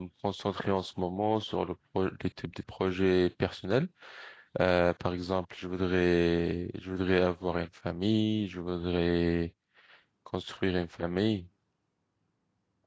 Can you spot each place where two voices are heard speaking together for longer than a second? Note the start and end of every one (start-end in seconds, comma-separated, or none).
none